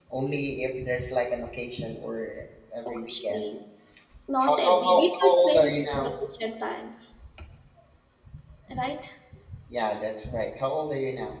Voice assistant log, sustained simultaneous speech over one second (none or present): present